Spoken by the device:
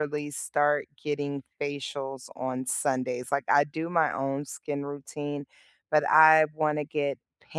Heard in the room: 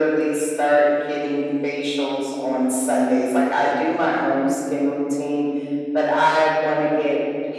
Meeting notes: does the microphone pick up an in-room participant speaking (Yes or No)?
No